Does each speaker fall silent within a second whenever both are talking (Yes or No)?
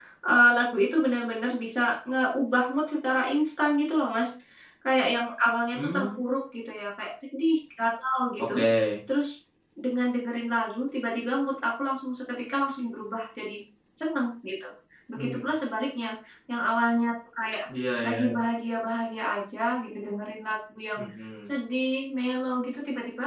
Yes